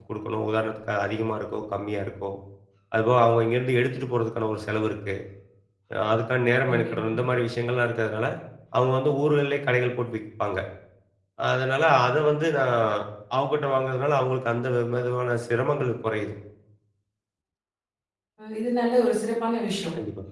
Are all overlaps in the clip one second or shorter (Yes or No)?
Yes